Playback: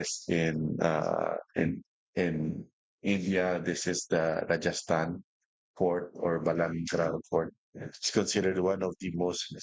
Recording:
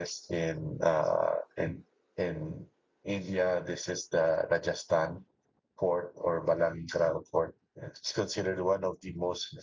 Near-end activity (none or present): none